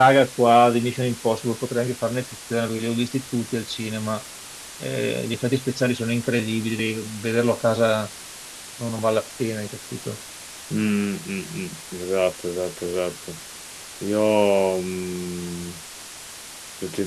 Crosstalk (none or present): none